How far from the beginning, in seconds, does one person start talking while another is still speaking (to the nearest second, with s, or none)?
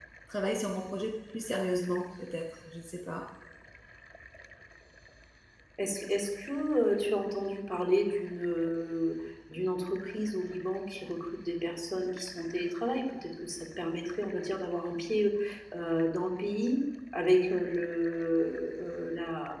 none